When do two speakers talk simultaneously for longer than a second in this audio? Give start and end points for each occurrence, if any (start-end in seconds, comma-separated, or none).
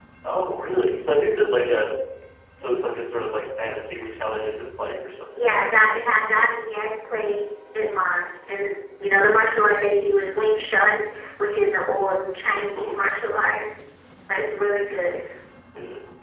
none